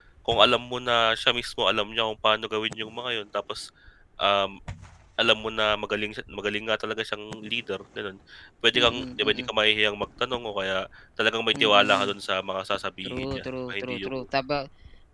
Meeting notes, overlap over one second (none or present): present